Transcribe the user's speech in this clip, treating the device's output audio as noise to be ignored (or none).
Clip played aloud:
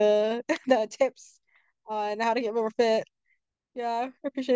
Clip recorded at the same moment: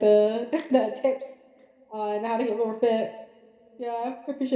none